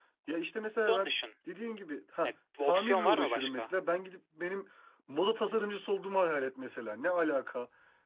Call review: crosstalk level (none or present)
present